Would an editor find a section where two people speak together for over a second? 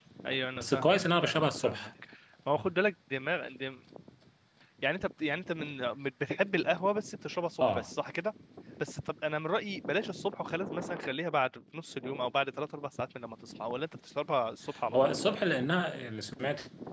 Yes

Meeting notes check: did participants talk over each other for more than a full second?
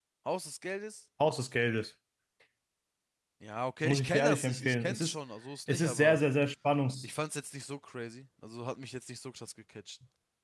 Yes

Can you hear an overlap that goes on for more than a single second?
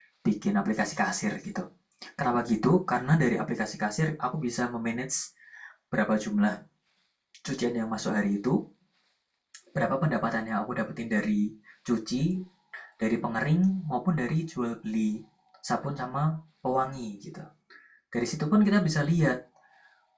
No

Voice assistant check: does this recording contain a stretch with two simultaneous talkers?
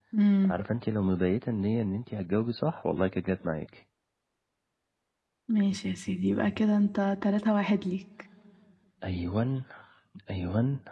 No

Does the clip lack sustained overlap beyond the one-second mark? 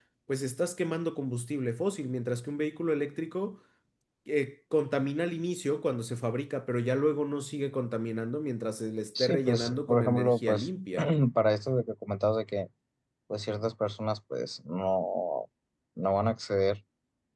No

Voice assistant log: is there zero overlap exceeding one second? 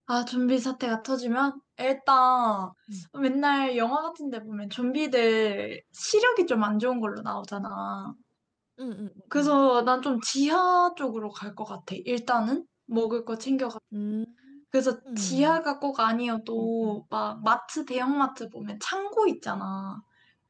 Yes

